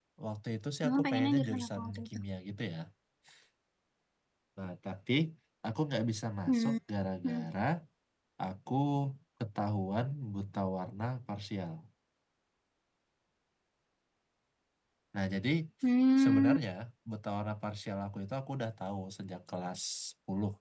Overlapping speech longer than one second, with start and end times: 0.8-2.1

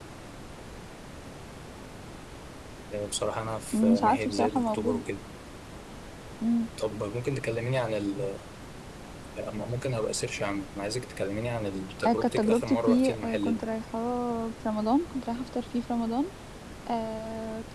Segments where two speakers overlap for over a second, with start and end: 3.7-5.0, 12.1-13.6

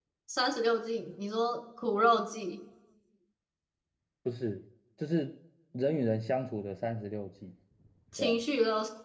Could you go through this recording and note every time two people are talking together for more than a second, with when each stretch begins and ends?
none

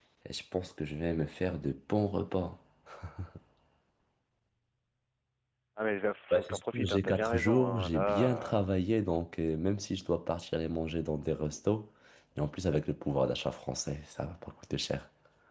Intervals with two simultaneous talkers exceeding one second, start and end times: 6.3-8.6

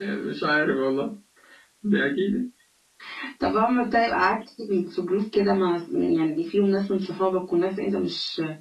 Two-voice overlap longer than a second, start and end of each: none

